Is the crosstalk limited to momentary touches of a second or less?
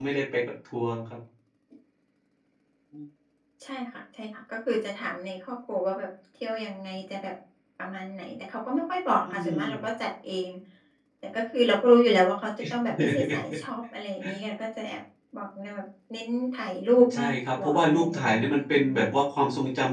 No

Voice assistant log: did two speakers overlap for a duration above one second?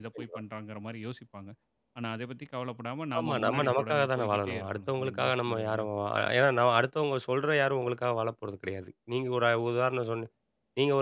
Yes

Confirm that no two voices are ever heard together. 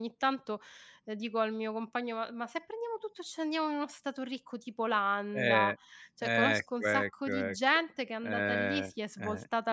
No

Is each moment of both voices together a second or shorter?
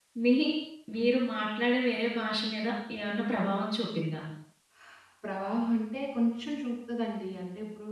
Yes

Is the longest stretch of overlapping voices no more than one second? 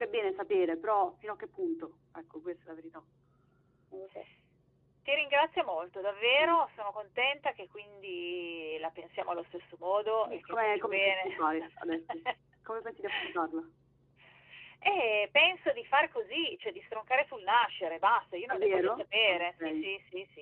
No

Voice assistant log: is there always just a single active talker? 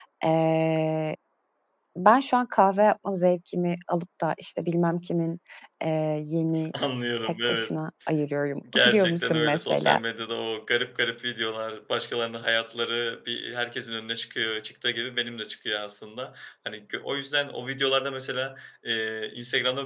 No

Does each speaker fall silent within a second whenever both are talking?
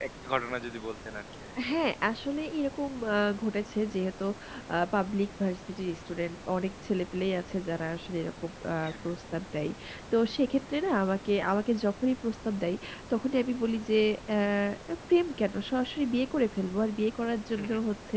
Yes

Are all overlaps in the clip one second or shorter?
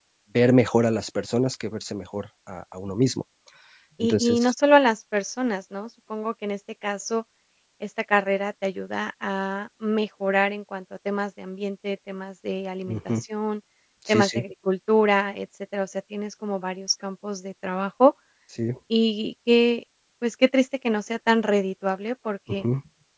Yes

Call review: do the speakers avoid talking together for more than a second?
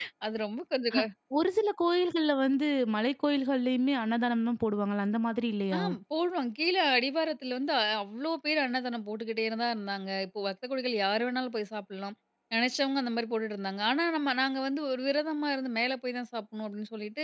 Yes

